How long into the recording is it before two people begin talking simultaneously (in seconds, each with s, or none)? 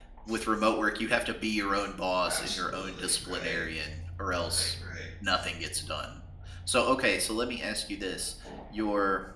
2.3 s